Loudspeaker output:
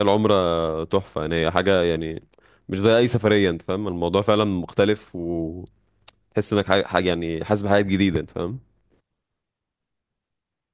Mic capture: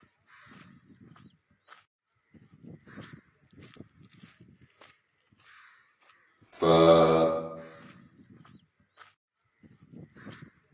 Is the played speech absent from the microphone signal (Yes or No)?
Yes